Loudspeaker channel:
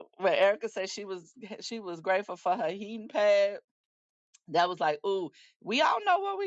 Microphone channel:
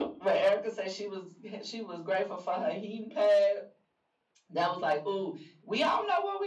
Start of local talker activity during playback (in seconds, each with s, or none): none